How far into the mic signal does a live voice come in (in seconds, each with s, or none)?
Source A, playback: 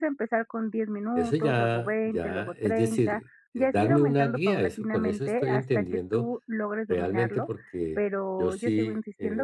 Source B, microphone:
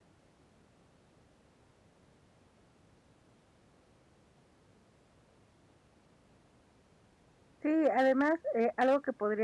7.6 s